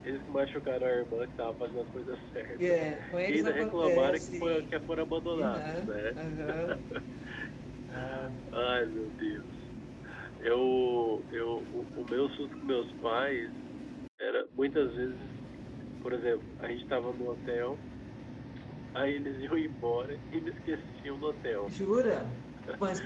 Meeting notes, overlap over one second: present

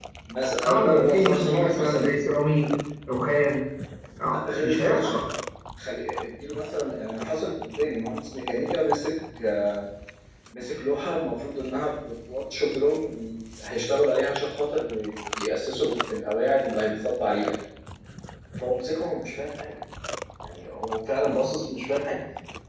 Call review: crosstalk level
present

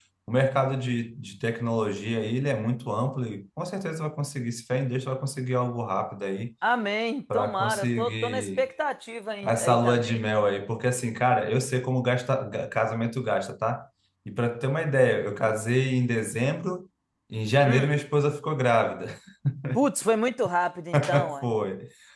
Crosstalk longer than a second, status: present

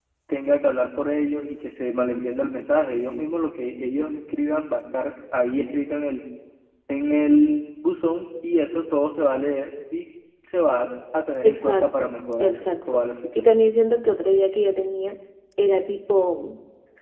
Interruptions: present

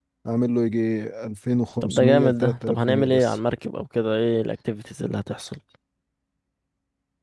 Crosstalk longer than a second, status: present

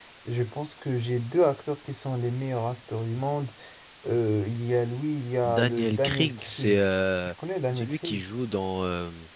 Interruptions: present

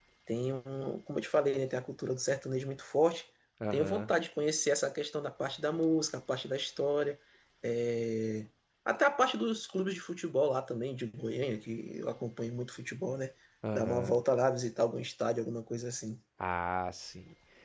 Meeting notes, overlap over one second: none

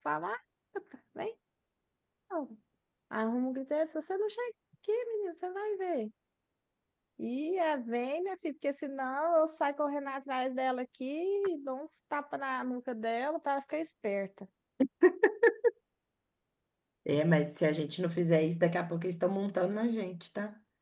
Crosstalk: none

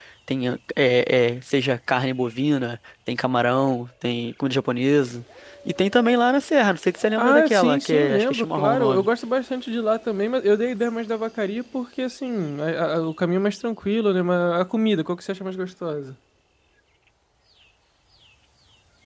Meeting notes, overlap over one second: present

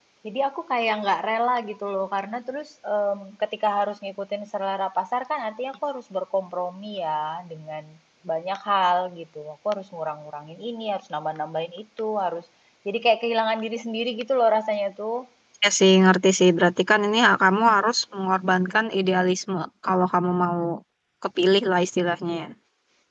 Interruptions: none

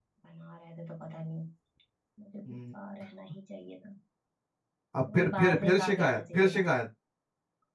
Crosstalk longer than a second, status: present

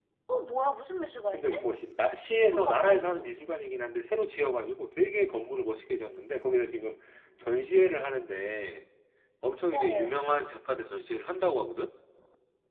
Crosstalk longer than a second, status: none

